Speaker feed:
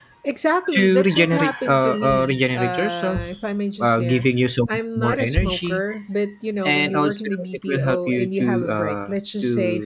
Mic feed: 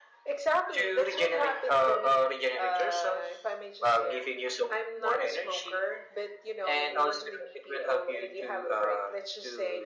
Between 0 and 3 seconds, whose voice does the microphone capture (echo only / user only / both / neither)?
echo only